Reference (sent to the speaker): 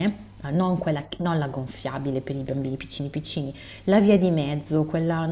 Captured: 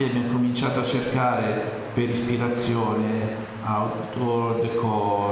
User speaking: Yes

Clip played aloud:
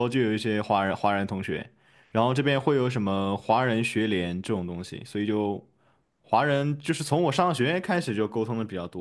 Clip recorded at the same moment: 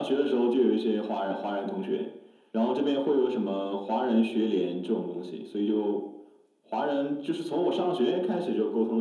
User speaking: No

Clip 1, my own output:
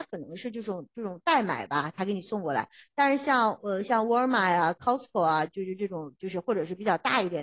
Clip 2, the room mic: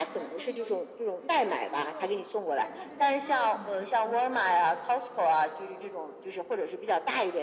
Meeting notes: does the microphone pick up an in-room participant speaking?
Yes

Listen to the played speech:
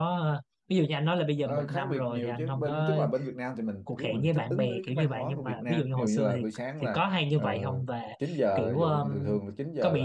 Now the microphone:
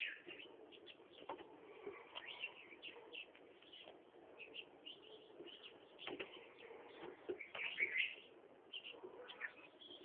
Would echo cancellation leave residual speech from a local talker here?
No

